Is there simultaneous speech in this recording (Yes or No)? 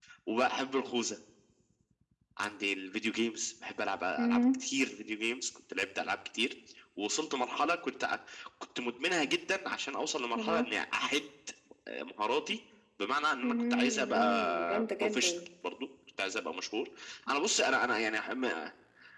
Yes